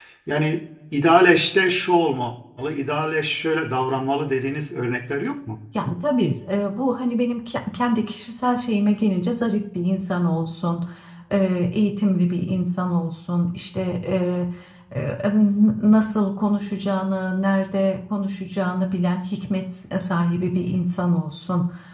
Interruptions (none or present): none